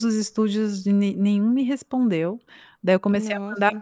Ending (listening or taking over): listening